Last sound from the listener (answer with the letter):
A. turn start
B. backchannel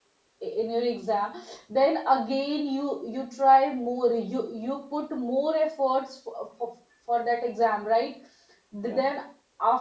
B